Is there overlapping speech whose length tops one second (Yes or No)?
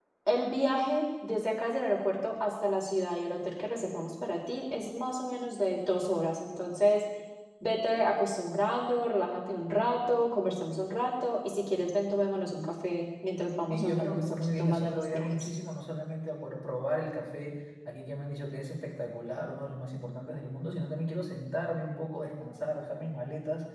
Yes